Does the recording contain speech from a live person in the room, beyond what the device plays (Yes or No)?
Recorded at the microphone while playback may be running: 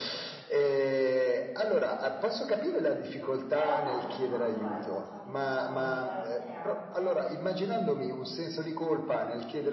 Yes